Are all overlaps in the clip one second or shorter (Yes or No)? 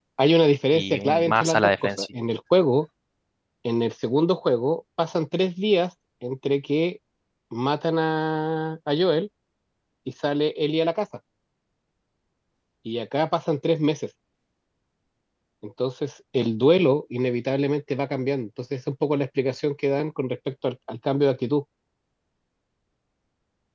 No